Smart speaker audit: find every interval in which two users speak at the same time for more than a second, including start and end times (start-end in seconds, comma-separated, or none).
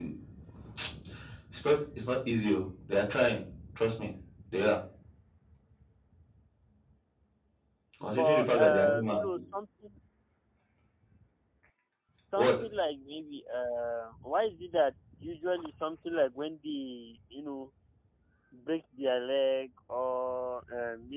8.0-9.2